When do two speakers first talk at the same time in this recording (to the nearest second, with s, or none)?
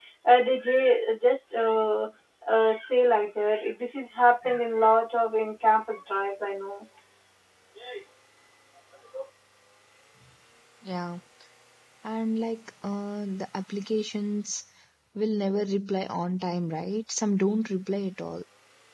none